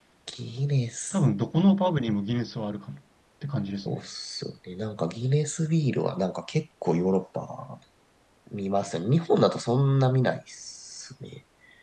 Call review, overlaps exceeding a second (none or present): none